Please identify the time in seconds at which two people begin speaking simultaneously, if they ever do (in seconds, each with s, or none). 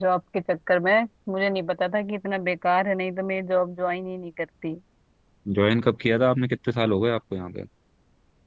none